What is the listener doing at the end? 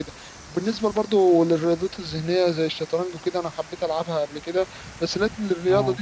listening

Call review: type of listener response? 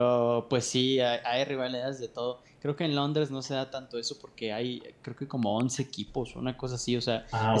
listening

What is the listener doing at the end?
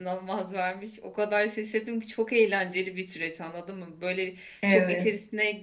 listening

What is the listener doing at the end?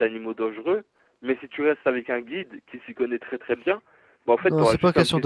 taking over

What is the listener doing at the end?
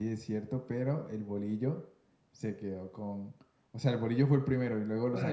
listening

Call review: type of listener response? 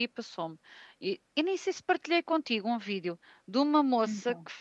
listening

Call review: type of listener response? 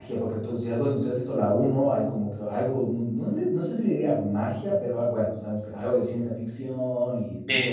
taking over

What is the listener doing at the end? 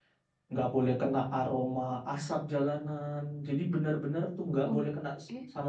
listening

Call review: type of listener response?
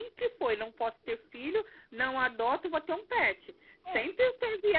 listening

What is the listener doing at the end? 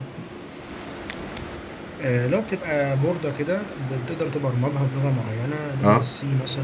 listening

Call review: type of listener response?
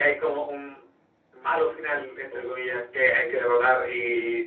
listening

